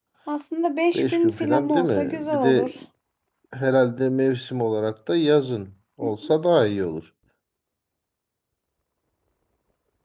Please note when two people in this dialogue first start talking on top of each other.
1 s

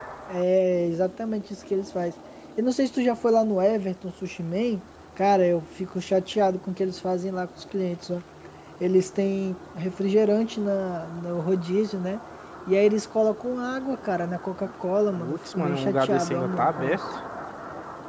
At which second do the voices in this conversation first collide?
15 s

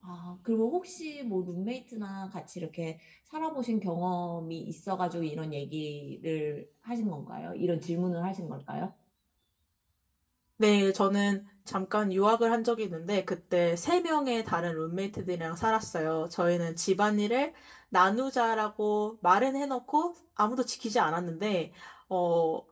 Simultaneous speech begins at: none

